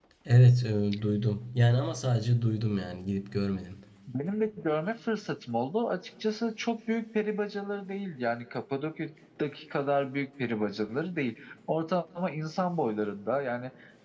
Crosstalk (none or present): none